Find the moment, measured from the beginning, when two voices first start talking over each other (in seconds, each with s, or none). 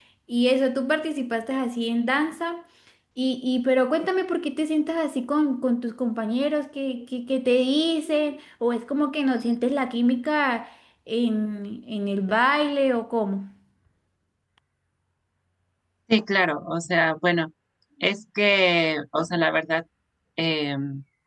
none